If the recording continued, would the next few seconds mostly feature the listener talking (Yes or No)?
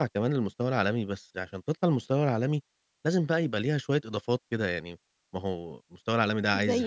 No